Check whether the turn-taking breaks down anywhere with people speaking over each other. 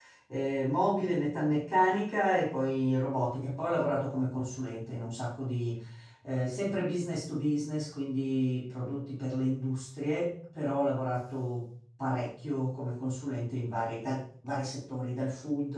No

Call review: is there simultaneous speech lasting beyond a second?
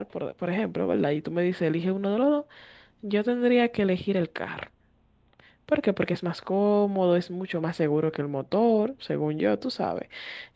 No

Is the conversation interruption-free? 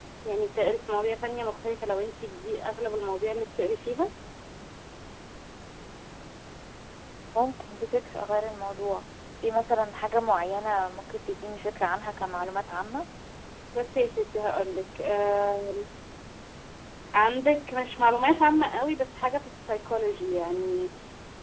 Yes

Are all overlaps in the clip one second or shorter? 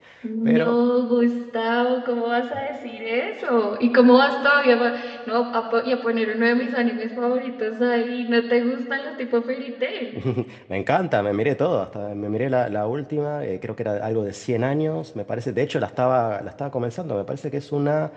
Yes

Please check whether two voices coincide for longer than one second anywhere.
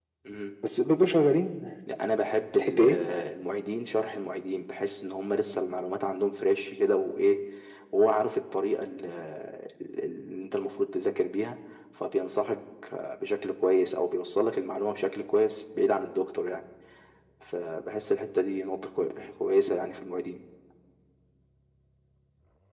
No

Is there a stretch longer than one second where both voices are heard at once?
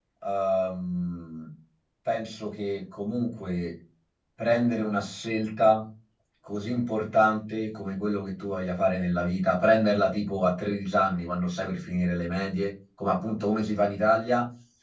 No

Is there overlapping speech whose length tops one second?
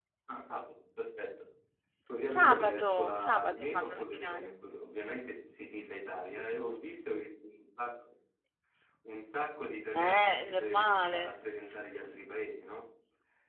Yes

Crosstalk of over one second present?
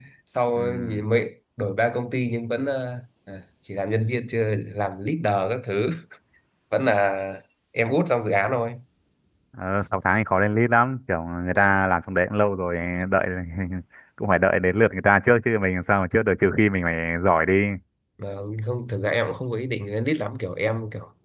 No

